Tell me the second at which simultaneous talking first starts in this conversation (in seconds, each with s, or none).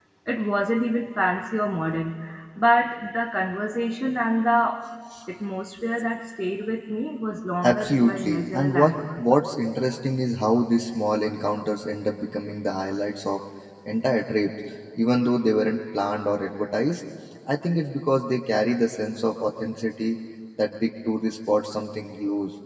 7.6 s